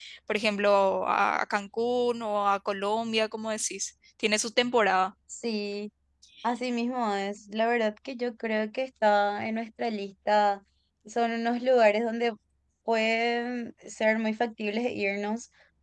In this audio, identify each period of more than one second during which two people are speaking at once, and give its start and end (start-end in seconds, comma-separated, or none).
none